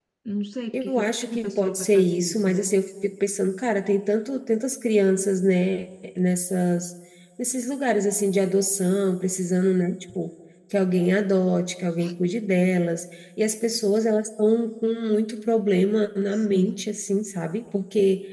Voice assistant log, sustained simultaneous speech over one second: present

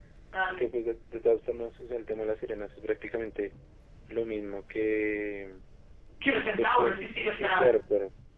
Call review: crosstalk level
present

